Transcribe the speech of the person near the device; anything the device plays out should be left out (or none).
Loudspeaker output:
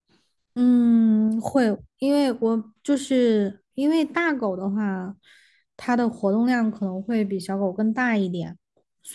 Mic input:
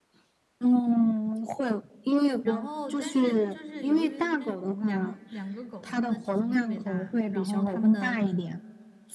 然后但是就是由于那两两个狗，它们的体型特别大，然后它们的